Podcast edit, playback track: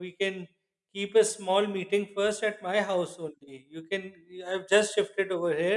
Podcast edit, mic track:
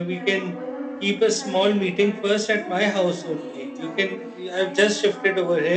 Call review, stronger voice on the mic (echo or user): echo